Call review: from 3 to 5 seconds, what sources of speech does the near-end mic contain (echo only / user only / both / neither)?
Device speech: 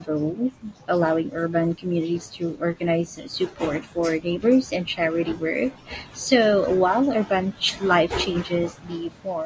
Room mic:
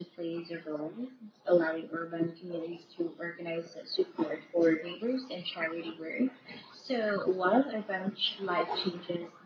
echo only